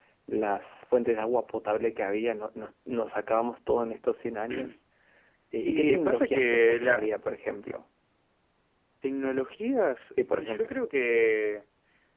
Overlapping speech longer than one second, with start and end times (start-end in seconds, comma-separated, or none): 5.6-7.0